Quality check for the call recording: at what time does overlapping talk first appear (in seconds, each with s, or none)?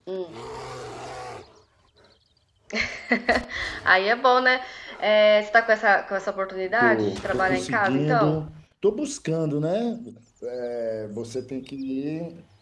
6.8 s